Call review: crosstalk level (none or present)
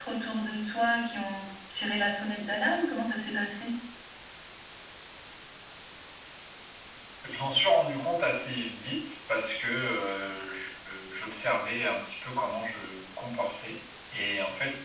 none